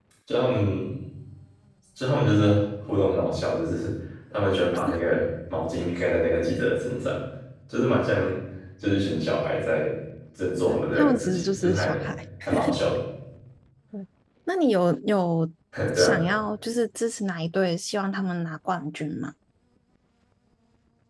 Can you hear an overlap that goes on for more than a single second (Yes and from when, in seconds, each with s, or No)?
Yes, from 10.7 s